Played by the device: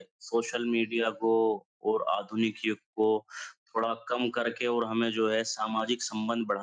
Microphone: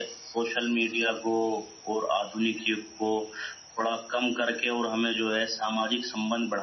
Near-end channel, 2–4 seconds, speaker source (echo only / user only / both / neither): echo only